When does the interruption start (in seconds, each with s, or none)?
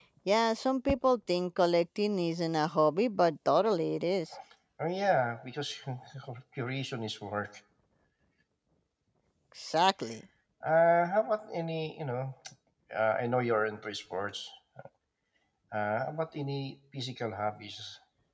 none